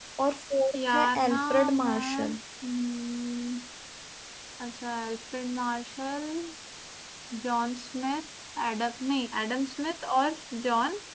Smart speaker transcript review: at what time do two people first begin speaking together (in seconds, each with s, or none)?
0.8 s